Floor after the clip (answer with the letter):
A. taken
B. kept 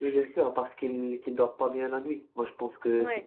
B